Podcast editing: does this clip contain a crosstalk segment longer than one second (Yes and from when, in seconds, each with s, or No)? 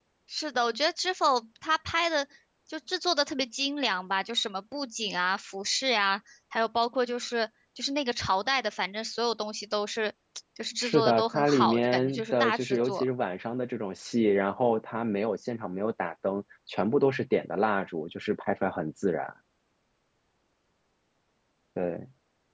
Yes, from 10.8 s